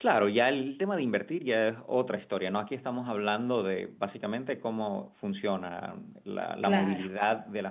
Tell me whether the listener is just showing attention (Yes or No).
Yes